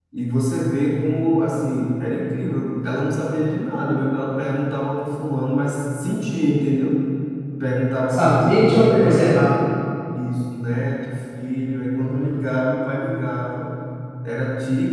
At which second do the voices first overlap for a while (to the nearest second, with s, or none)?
8 s